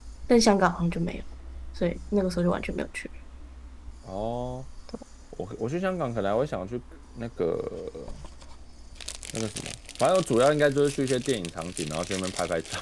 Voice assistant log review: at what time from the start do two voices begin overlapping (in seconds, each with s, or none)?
none